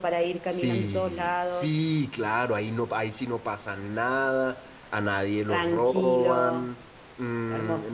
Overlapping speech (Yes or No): Yes